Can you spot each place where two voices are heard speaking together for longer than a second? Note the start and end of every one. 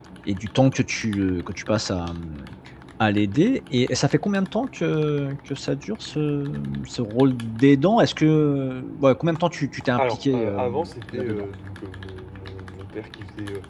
10.0-11.5

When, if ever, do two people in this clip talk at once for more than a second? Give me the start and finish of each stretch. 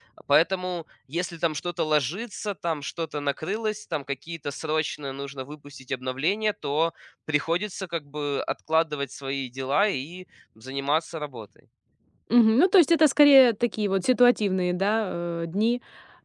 none

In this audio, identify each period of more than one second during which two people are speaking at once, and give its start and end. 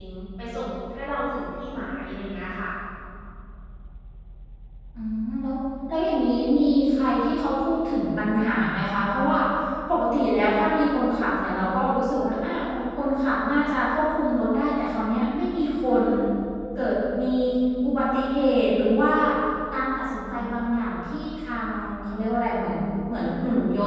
none

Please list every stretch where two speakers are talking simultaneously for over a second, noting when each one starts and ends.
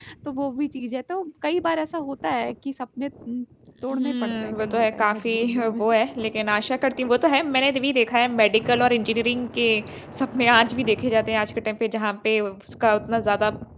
3.9-5.8

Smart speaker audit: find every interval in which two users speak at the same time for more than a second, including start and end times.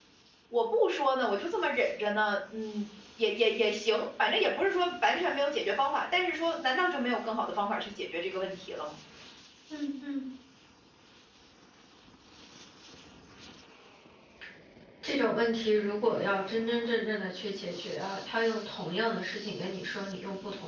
none

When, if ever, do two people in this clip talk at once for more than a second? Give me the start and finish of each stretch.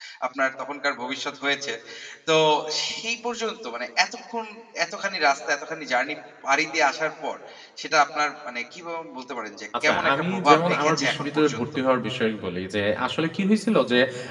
9.9-11.6

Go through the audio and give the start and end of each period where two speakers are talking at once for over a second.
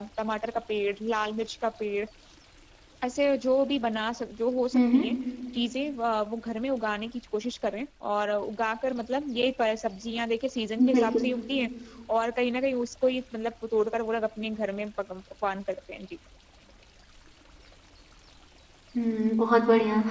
none

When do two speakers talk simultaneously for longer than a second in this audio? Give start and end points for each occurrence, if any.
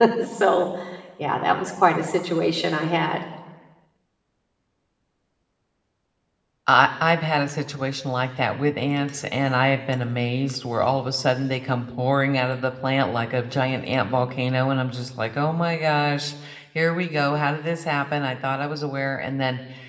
none

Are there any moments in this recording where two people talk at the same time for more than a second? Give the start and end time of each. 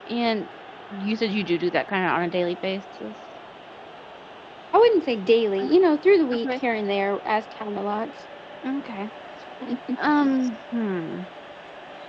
none

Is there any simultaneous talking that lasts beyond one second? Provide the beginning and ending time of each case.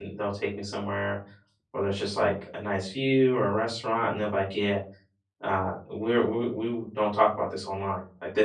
none

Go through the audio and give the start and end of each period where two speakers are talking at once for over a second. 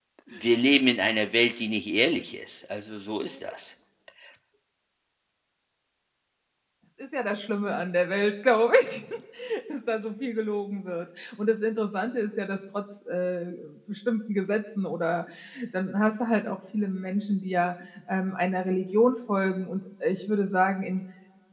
none

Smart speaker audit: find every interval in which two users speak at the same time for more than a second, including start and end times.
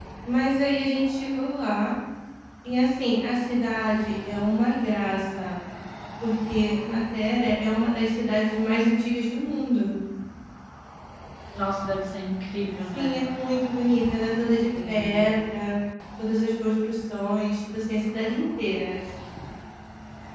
none

